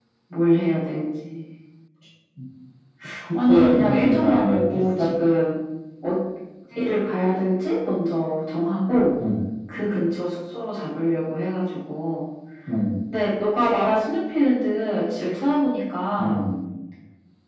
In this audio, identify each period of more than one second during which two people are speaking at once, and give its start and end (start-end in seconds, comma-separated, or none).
3.5-5.1